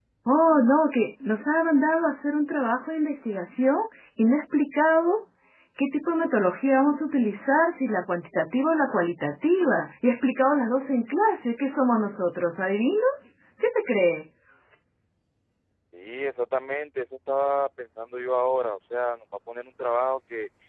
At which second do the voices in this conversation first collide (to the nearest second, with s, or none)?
none